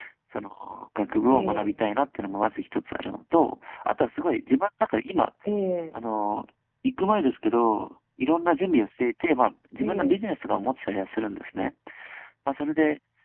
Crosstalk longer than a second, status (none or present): none